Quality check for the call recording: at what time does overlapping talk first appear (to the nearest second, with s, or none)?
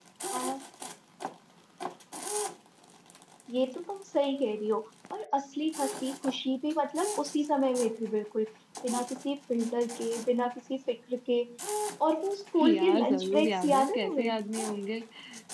13 s